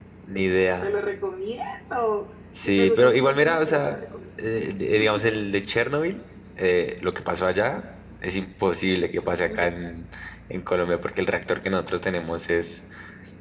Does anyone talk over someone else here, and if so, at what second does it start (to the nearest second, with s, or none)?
3 s